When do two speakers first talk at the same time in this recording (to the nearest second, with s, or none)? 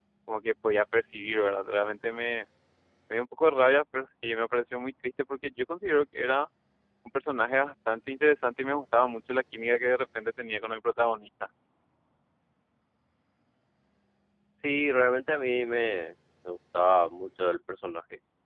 none